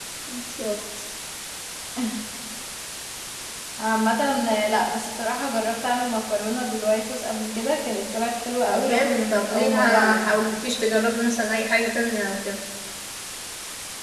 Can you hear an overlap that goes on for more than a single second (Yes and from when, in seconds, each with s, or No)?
Yes, from 8.6 s